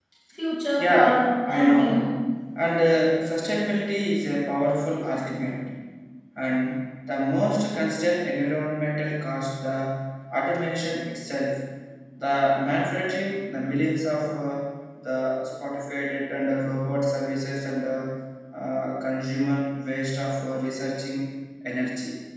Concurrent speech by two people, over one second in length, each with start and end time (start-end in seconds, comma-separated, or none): 0.8-2.1